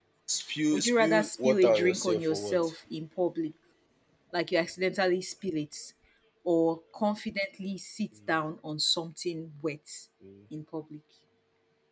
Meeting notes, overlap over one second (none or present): present